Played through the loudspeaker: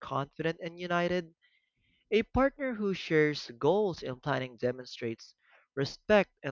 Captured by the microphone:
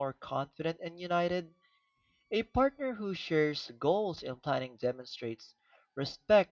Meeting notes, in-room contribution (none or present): none